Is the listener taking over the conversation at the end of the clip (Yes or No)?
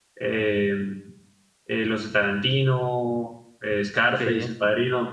No